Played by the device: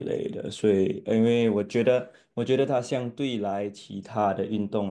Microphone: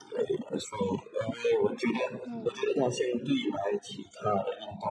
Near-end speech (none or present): present